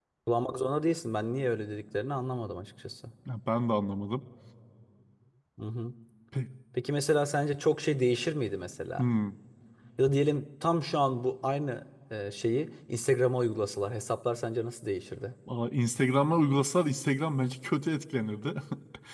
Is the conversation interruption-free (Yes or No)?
Yes